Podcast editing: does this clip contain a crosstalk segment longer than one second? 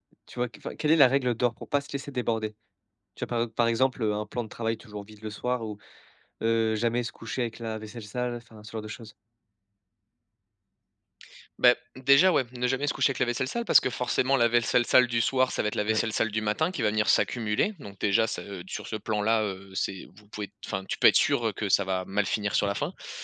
No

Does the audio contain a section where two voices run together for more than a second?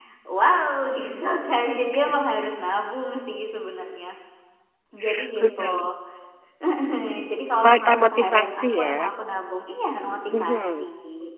Yes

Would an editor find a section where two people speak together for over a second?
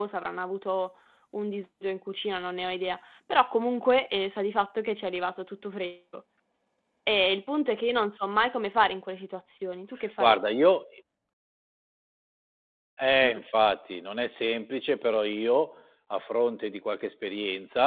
No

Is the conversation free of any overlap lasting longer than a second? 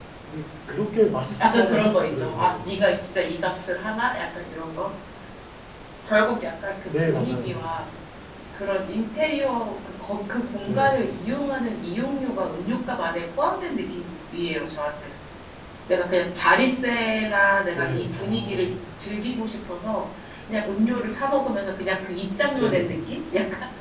No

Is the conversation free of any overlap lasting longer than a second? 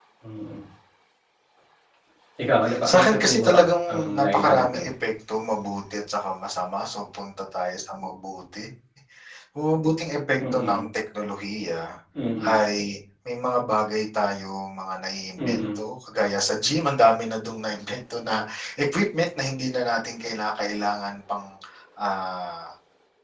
No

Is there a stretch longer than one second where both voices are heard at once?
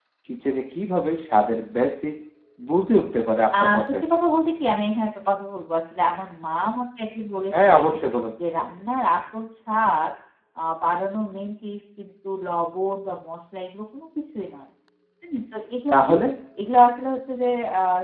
No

